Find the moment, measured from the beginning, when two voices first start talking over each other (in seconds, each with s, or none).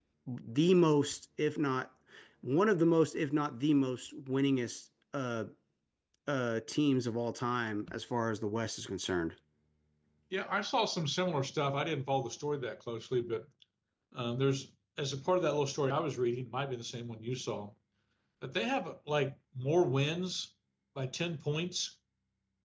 none